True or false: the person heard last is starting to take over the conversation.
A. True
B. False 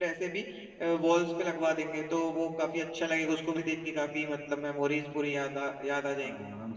A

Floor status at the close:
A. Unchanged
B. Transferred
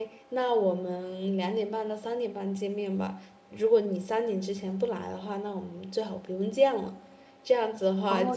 B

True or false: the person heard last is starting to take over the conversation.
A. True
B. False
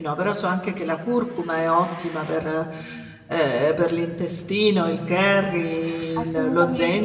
A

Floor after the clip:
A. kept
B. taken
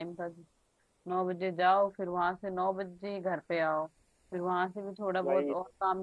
A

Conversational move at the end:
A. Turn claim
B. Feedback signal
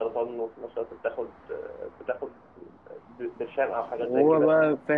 A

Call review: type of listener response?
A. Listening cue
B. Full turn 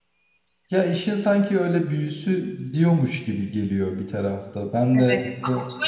B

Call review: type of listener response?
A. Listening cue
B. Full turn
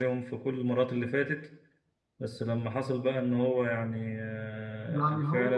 A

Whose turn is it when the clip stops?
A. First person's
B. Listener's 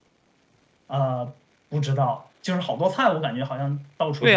B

